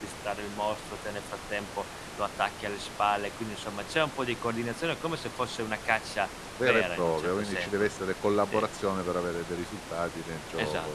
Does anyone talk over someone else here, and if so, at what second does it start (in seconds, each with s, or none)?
6.6 s